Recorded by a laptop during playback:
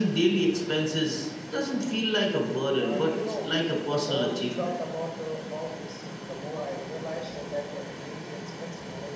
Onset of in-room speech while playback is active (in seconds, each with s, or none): 2.8 s